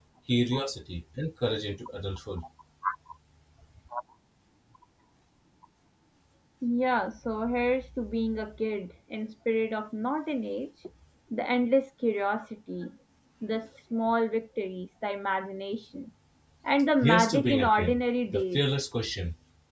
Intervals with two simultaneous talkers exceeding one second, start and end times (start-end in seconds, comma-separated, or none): 17.0-18.6